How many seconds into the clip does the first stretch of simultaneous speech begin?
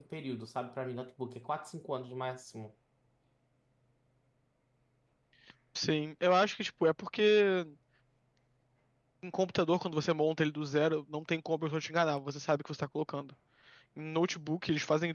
none

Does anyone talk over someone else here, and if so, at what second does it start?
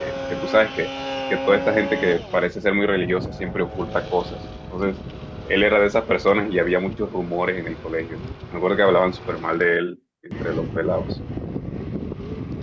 none

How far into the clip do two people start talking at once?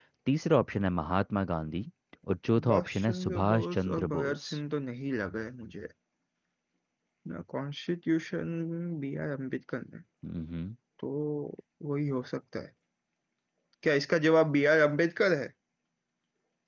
3 s

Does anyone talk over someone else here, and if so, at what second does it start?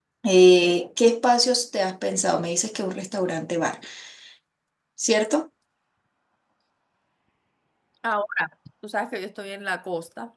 none

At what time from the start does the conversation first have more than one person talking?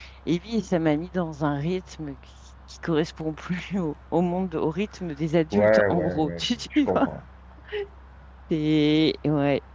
6 s

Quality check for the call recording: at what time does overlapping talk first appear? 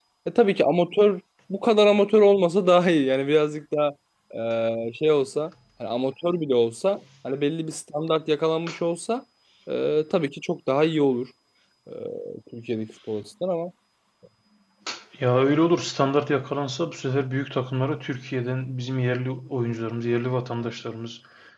none

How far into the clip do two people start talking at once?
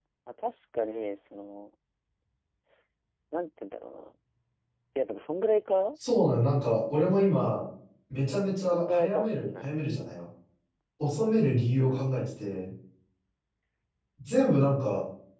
8 s

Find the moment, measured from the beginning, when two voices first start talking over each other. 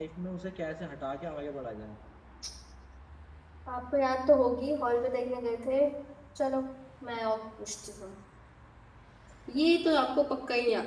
none

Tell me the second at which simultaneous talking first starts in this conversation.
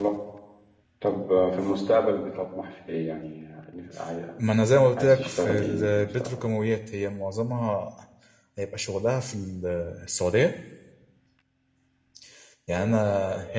5 s

